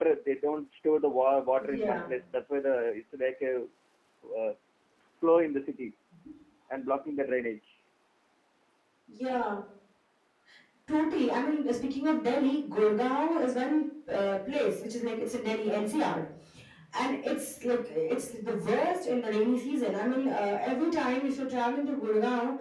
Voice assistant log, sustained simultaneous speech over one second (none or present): none